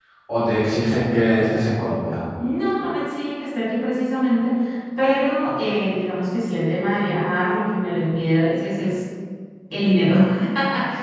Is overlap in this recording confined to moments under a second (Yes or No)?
Yes